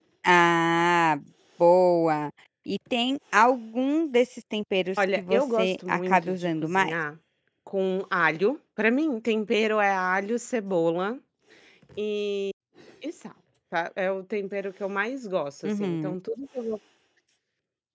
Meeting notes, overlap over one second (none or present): present